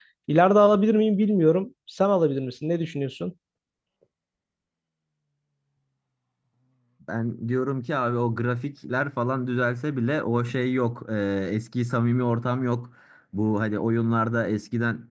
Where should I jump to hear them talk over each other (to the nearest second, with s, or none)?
none